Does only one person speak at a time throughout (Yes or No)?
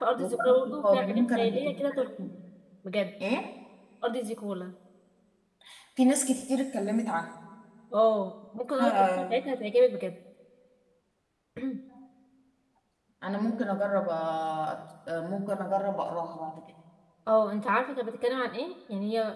No